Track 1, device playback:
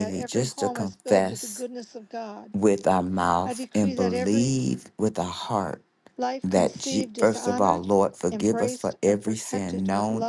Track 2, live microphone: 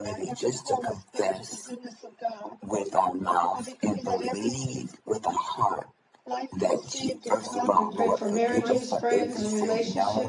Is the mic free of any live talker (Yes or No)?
No